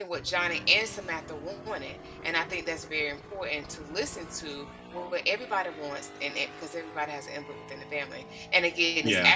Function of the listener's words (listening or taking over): listening